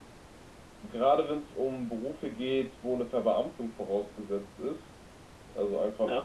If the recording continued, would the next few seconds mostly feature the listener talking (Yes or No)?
No